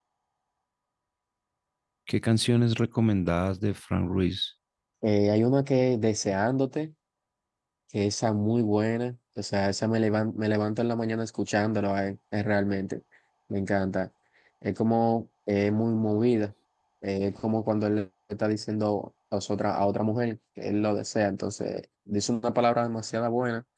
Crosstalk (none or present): none